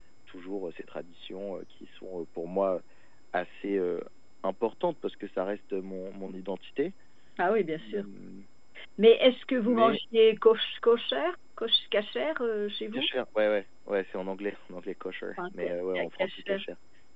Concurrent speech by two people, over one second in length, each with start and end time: 15.4-16.6

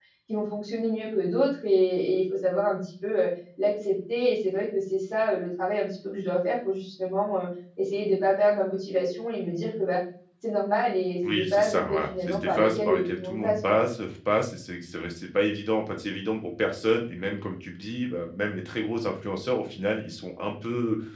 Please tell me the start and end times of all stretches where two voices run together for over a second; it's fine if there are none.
11.3-13.8

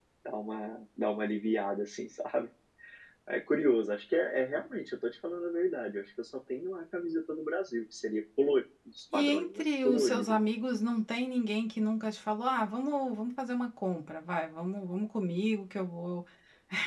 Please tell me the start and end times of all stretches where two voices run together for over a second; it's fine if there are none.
9.1-10.3

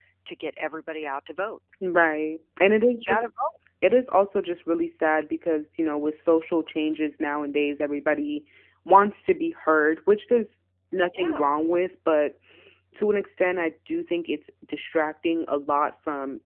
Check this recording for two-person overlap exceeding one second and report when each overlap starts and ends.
none

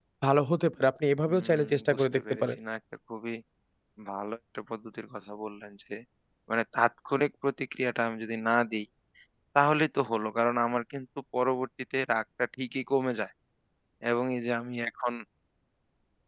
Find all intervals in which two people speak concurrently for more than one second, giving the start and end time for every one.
1.3-2.6

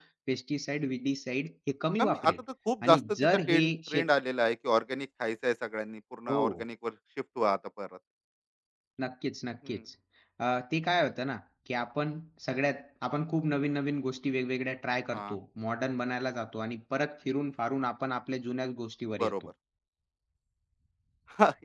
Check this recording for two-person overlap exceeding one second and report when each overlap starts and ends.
2.8-4.0

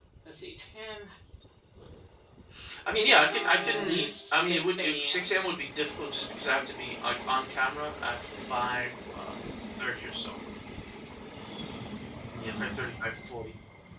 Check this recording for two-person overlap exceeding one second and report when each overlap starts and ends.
3.2-5.4

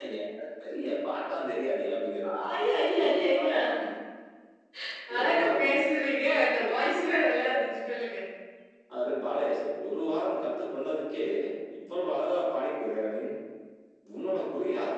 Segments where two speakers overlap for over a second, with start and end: none

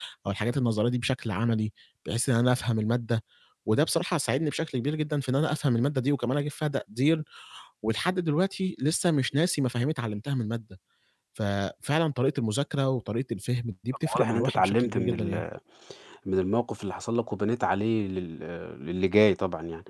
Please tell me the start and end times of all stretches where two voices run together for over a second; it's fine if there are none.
14.2-15.4

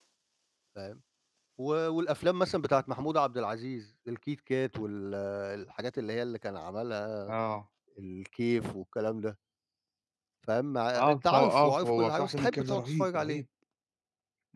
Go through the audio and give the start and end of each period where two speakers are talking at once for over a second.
11.0-13.4

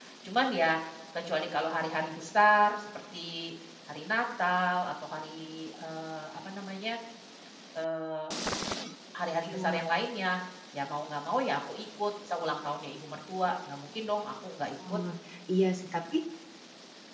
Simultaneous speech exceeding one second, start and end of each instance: none

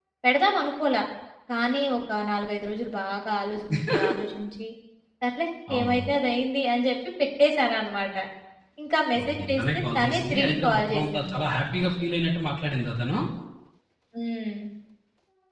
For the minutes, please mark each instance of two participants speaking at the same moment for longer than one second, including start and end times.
9.2-11.4

